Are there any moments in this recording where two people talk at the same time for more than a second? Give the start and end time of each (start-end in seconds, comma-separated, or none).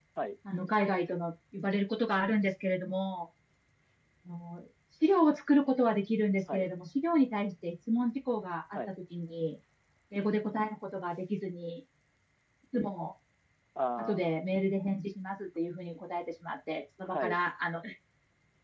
none